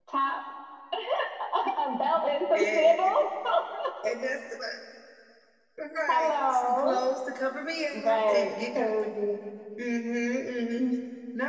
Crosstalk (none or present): present